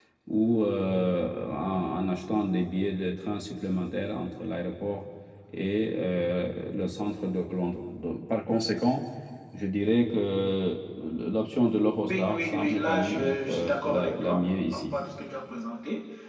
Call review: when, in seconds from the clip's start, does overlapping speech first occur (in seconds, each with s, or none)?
12.1 s